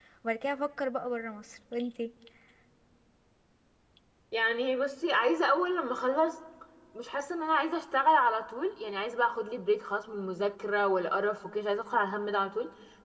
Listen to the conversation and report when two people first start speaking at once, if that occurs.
none

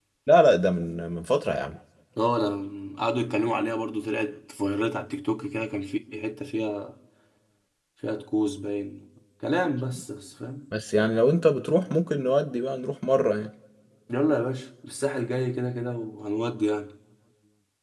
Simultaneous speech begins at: none

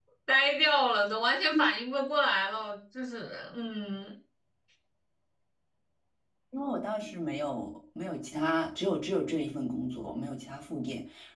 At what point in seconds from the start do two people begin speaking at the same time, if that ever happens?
none

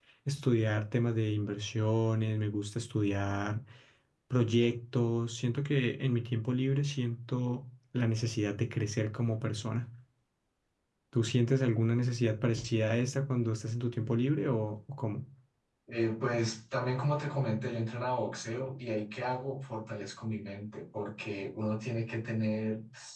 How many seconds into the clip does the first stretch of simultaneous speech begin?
none

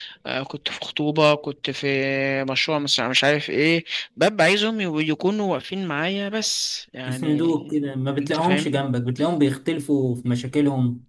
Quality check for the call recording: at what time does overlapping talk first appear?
7 s

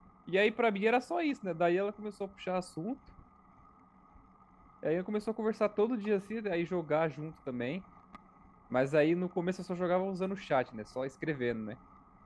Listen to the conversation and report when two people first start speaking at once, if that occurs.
none

